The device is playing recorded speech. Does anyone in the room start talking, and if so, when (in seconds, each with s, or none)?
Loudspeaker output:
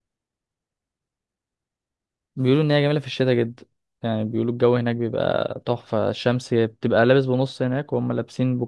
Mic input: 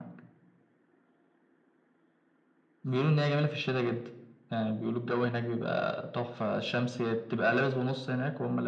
none